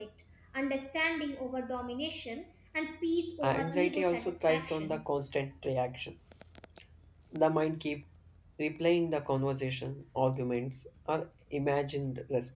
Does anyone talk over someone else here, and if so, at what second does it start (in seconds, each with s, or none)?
3.4 s